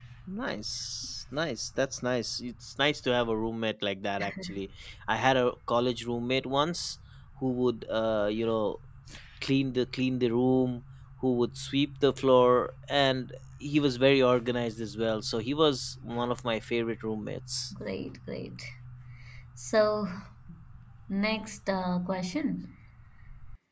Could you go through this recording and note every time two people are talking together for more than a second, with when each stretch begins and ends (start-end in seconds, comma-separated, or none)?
none